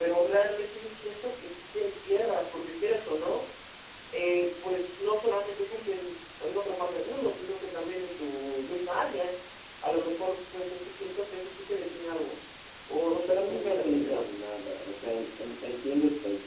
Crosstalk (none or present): present